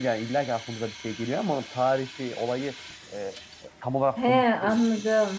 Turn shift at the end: Yes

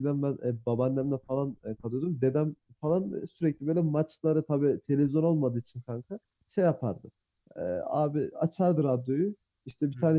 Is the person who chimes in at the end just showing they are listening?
Yes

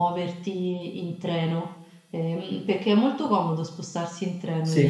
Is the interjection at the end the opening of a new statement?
Yes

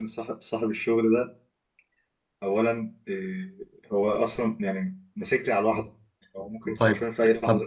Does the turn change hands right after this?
Yes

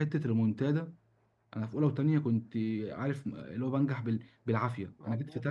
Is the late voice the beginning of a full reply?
No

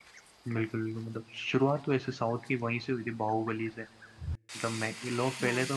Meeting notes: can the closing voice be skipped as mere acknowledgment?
Yes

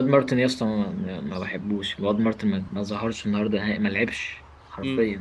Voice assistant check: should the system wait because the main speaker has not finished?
No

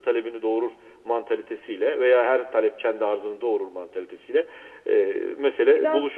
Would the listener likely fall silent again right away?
No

